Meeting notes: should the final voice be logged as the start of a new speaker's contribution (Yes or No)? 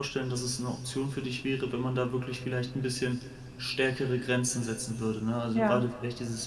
No